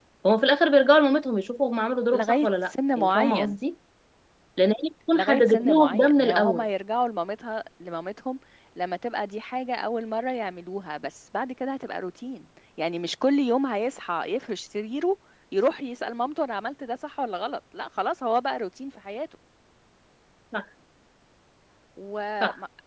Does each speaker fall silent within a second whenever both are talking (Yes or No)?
No